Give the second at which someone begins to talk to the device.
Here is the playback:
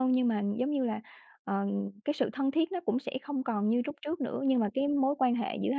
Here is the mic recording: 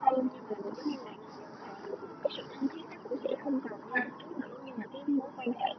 4 s

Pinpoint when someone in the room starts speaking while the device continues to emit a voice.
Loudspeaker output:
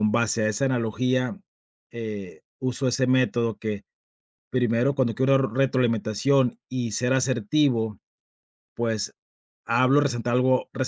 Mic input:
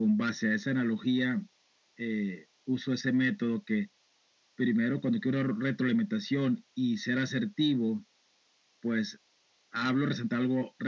none

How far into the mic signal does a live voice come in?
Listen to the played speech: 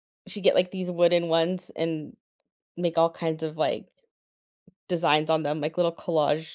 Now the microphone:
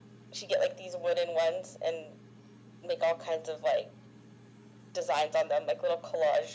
none

